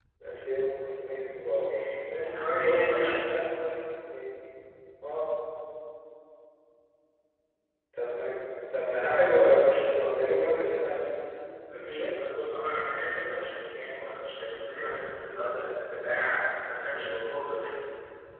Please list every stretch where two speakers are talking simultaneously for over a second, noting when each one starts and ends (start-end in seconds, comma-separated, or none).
2.1-3.5